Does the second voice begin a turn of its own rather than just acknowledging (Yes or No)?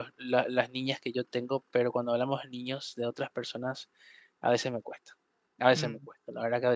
No